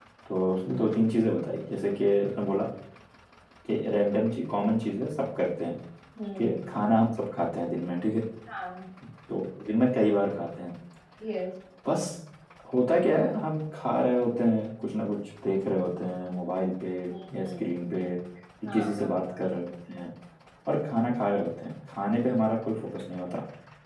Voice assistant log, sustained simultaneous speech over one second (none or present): none